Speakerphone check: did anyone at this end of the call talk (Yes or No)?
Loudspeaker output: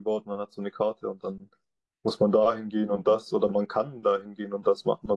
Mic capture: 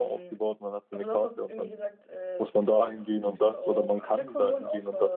Yes